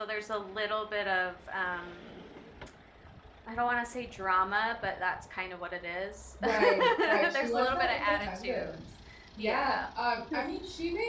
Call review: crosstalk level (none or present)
present